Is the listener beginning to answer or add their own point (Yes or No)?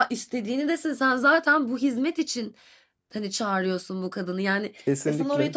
No